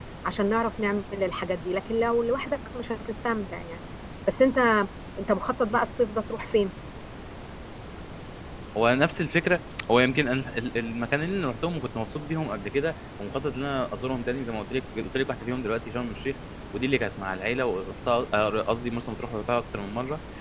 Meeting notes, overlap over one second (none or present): none